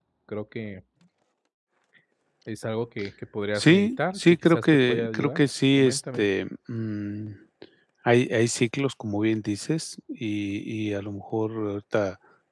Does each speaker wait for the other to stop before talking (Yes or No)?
No